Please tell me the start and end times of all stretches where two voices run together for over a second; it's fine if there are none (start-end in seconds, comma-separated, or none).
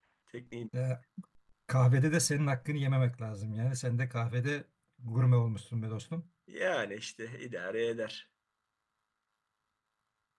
none